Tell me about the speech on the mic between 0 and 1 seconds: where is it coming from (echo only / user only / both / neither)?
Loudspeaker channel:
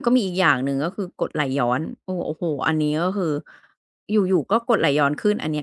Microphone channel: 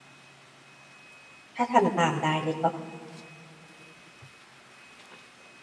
neither